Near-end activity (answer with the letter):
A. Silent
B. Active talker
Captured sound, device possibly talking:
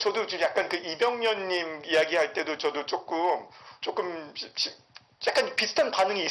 A